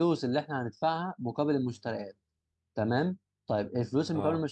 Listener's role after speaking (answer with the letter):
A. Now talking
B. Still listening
B